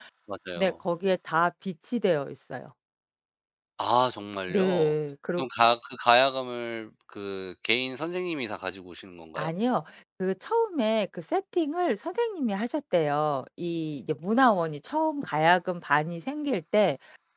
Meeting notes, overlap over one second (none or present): none